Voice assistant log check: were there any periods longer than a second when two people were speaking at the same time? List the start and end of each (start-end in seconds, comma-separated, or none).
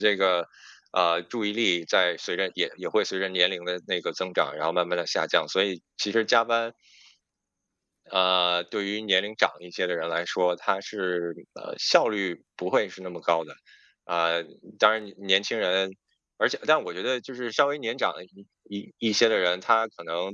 none